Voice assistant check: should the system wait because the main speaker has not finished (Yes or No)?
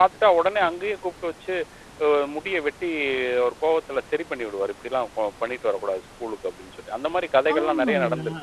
No